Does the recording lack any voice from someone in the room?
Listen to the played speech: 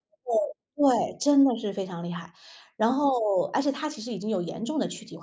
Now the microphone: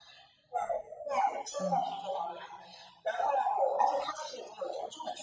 No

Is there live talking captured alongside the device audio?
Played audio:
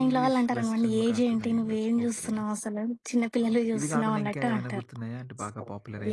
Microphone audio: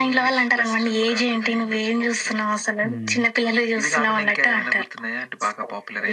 Yes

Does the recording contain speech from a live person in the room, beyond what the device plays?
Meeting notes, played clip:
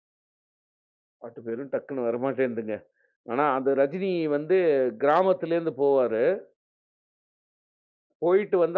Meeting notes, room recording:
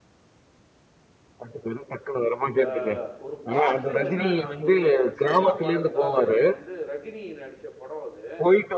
Yes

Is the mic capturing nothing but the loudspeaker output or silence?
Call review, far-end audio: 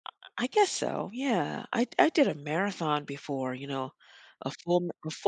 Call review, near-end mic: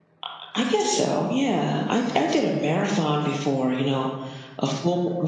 Yes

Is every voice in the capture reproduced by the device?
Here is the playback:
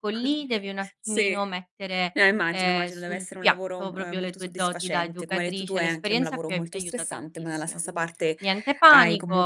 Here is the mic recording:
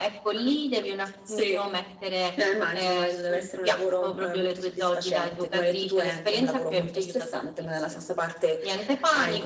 Yes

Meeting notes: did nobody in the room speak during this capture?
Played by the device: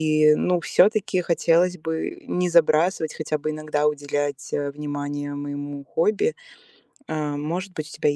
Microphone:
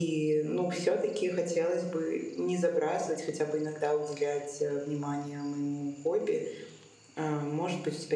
Yes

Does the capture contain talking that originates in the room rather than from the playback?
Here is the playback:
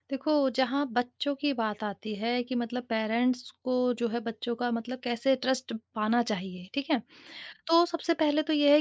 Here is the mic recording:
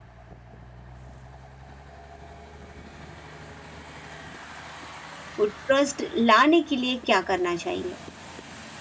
Yes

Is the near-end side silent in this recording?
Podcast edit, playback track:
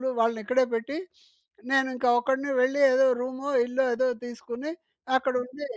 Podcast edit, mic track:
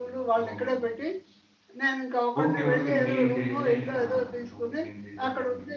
No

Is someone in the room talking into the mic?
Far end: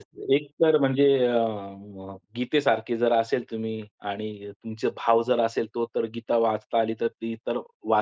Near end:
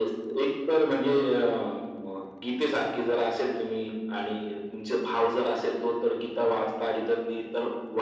No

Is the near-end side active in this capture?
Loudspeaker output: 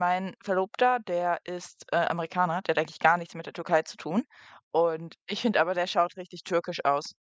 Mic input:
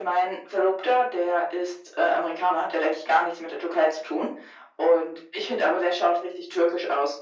No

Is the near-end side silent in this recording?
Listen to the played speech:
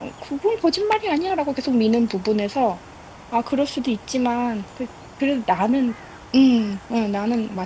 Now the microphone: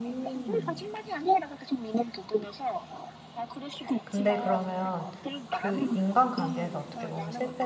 No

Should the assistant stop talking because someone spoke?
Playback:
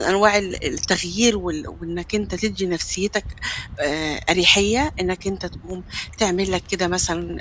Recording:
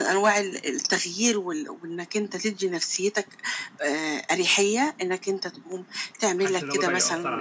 Yes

